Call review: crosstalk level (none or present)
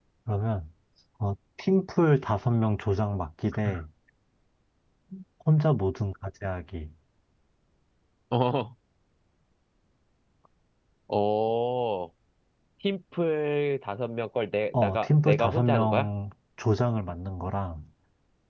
present